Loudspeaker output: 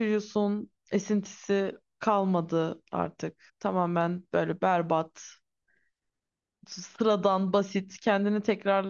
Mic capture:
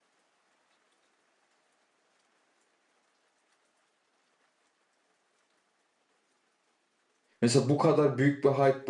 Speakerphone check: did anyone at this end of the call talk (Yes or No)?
Yes